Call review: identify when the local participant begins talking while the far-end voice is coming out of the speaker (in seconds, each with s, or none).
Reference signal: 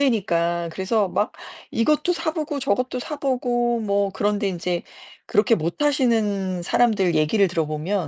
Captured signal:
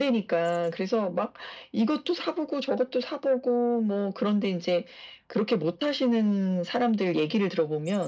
none